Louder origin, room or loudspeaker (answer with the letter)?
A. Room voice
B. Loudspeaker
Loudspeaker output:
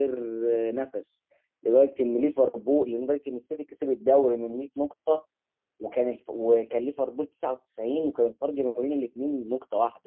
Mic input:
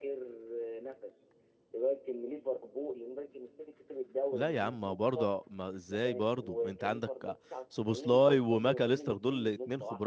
A